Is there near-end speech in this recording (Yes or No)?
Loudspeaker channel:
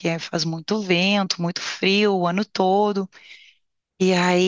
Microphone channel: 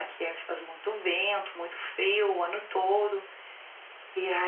No